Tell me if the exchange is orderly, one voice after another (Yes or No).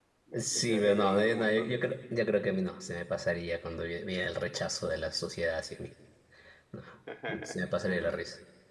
No